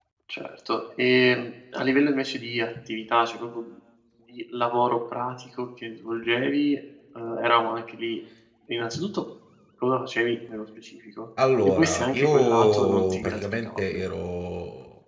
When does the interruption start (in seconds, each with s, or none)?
11.6 s